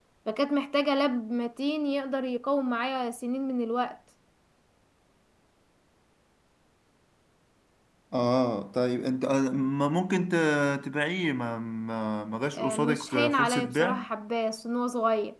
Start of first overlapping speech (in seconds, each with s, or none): 12.6 s